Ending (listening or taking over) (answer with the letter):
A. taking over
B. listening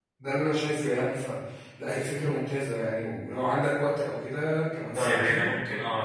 A